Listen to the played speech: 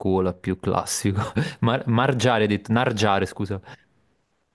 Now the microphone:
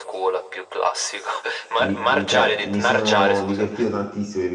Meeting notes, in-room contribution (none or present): present